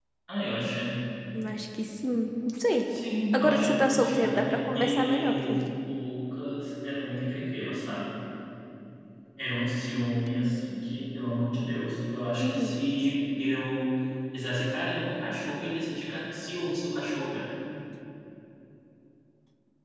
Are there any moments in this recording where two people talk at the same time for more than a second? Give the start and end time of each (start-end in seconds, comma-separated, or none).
3.3-5.6